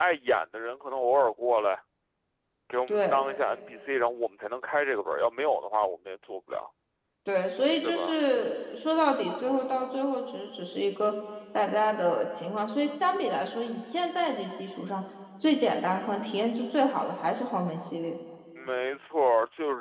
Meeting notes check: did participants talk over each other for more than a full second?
No

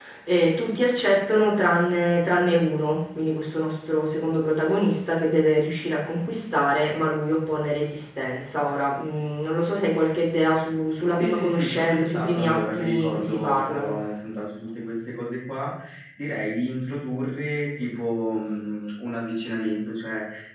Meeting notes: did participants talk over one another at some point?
Yes, from 11.2 s

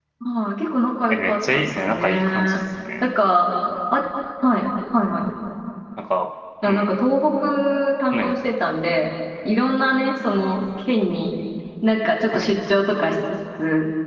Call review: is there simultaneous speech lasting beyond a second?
Yes, from 1.1 s

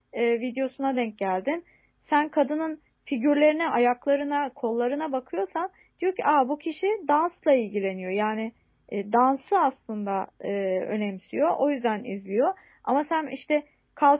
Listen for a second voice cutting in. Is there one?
No

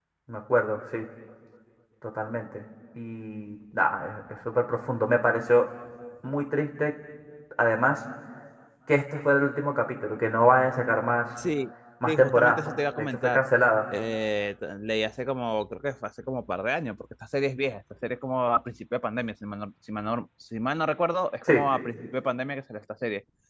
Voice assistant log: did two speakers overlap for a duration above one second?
Yes, from 12.1 s

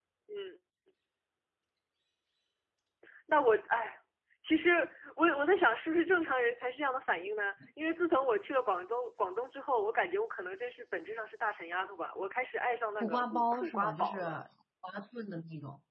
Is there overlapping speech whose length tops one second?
Yes, from 13.0 s

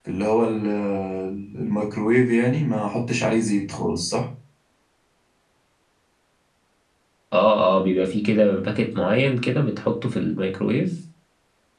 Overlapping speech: No

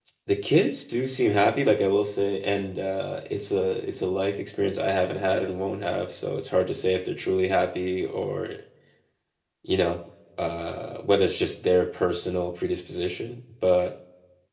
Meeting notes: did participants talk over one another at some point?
No

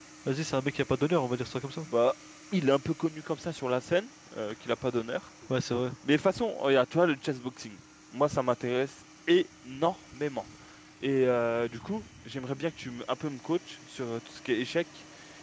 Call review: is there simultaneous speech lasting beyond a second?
No

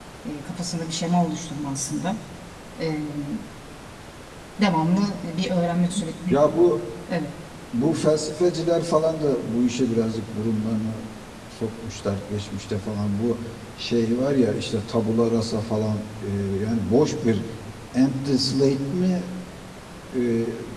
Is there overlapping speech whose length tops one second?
No

